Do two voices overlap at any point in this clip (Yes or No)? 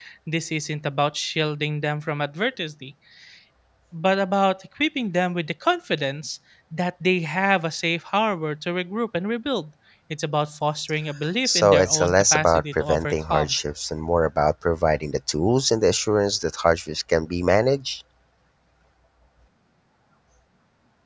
Yes